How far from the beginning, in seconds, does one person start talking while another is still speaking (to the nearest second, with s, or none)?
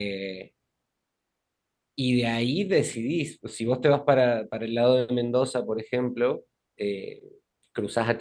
none